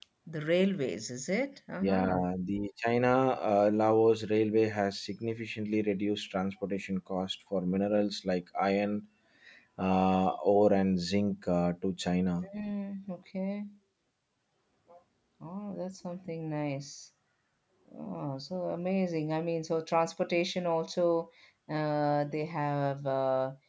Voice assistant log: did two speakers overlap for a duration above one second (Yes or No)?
No